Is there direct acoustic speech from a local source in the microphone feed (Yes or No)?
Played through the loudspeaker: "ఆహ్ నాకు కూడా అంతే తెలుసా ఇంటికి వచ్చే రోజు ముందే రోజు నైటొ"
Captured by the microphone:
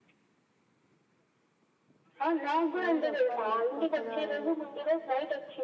Yes